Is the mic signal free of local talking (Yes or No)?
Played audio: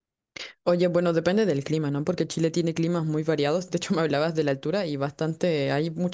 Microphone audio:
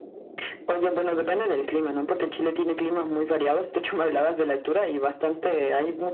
Yes